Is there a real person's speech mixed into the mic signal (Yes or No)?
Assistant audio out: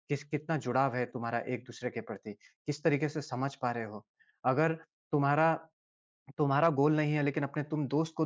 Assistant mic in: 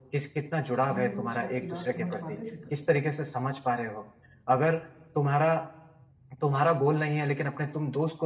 Yes